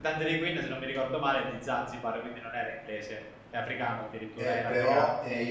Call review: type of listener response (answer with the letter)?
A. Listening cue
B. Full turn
B